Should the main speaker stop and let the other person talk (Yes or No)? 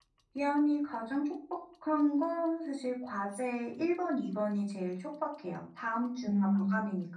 No